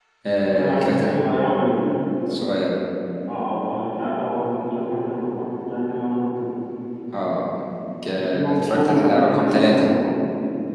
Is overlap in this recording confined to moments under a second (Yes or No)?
No